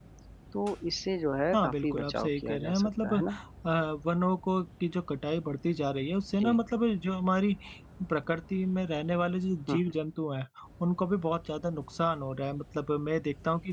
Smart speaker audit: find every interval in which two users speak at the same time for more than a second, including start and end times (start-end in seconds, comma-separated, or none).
1.5-3.4